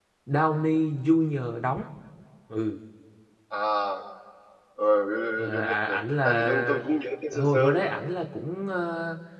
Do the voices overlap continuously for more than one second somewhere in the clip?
Yes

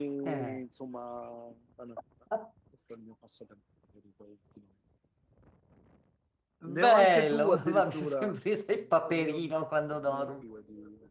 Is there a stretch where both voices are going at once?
Yes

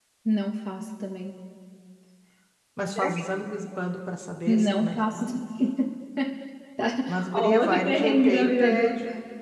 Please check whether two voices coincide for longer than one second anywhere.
Yes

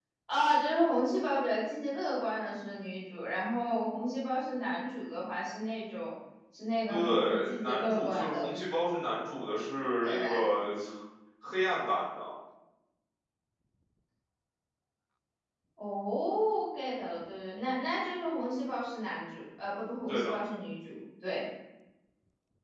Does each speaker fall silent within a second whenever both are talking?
No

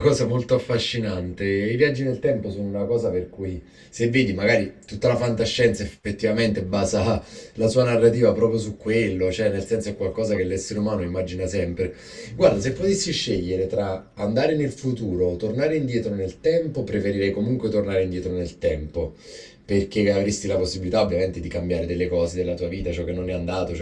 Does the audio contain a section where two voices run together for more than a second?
No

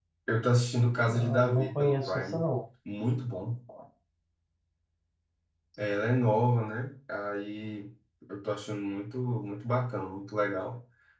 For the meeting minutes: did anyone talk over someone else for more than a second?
Yes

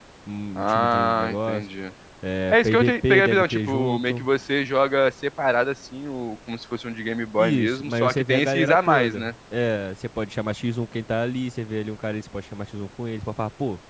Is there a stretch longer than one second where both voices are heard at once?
Yes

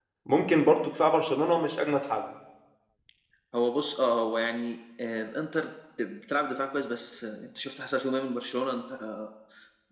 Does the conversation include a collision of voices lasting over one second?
No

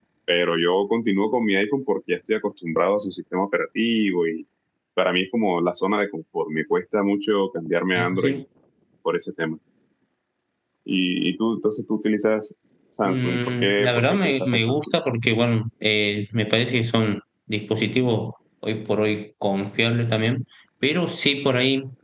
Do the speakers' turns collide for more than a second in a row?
Yes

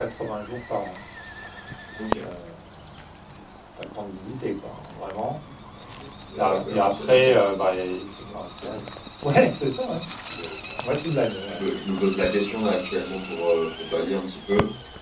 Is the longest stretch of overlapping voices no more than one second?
No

